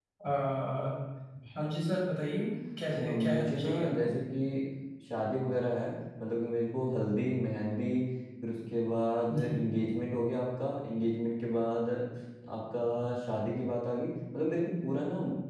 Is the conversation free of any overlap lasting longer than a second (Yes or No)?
No